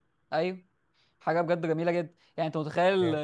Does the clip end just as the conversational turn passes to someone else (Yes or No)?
No